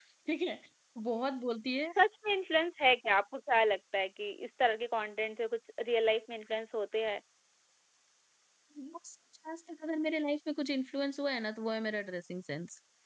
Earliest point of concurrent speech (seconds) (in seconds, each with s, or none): none